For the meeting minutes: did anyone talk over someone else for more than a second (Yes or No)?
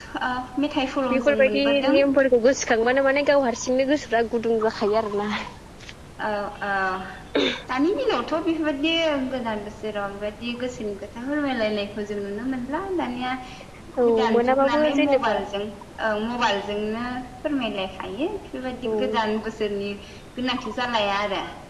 Yes